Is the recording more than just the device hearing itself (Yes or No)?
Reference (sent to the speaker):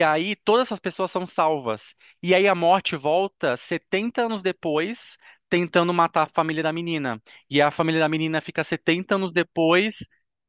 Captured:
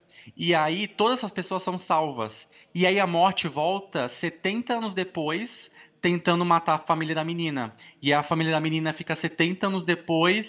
No